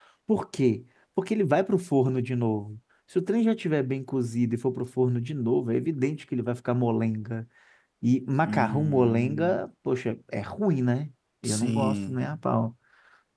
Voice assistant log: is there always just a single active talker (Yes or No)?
No